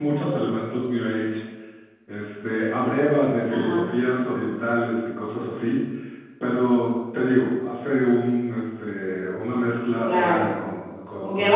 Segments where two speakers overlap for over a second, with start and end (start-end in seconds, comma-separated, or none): none